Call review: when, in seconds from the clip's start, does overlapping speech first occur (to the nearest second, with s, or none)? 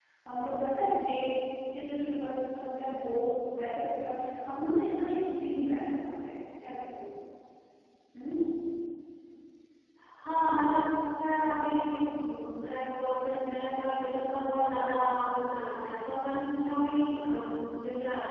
none